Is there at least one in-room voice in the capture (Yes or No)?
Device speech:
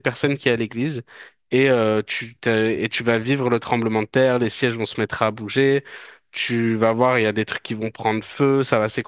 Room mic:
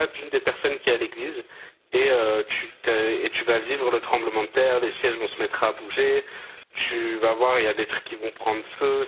No